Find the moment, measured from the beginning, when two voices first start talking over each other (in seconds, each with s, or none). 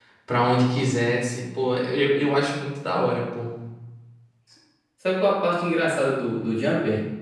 none